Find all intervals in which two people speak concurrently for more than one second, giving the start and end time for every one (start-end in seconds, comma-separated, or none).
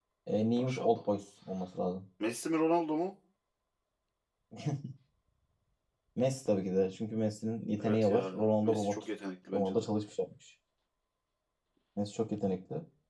7.8-9.0